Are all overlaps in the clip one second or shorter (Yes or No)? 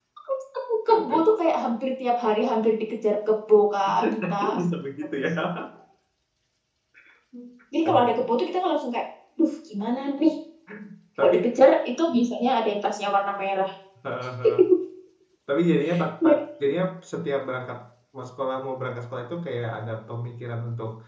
Yes